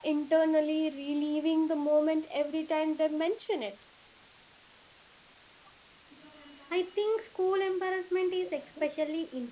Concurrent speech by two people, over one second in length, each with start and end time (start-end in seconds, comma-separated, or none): none